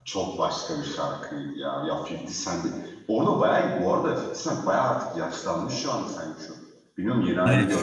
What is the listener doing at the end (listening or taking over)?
taking over